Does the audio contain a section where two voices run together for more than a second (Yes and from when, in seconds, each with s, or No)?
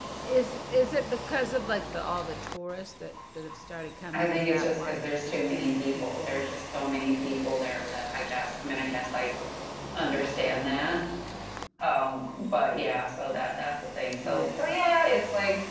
Yes, from 4.1 s